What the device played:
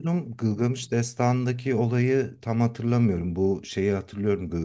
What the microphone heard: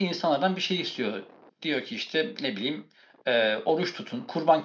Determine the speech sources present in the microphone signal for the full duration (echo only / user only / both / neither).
user only